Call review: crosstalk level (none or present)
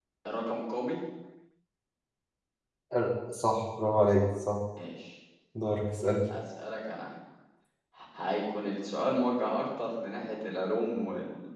none